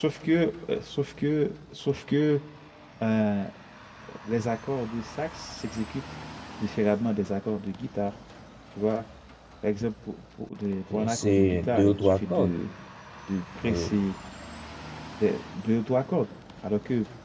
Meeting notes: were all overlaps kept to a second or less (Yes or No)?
No